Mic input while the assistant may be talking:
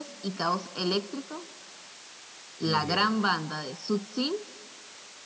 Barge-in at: 2.6 s

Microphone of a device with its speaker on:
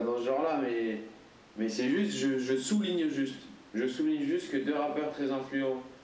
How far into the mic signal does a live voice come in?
none

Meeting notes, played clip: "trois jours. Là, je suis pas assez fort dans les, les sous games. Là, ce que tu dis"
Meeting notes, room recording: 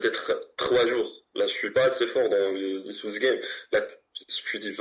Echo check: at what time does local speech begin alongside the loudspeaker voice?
none

